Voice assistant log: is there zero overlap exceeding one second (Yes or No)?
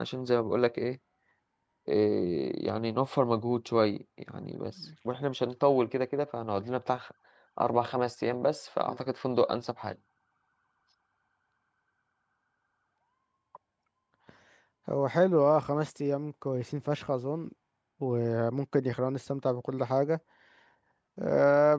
Yes